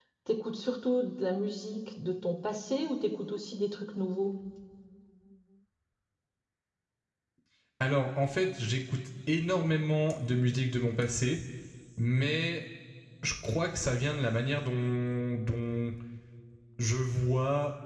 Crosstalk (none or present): none